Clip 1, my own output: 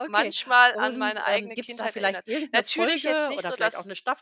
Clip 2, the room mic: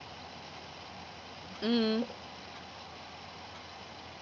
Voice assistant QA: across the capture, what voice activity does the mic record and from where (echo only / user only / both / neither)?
user only